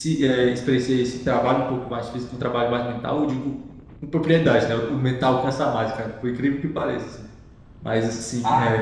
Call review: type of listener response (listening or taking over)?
listening